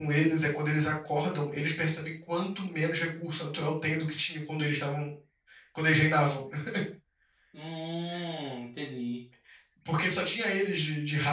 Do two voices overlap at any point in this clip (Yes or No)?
No